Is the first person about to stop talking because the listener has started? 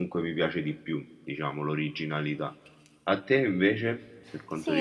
Yes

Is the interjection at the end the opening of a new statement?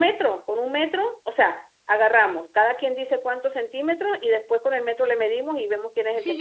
Yes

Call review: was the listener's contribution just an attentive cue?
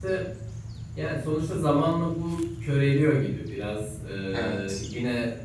Yes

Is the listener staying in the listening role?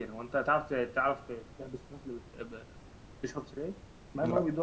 Yes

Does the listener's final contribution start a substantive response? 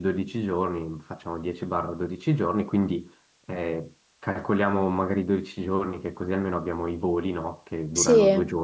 No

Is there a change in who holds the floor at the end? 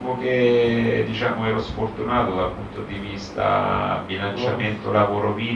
No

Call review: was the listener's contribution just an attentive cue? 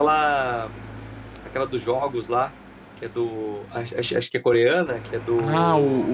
No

